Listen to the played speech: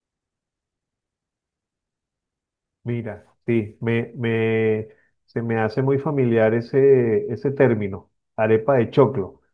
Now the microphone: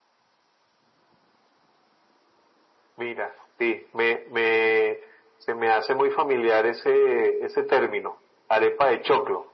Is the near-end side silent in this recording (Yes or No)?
Yes